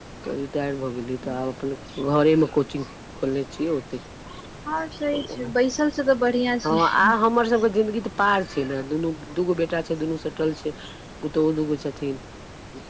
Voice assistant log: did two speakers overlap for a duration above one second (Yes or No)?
No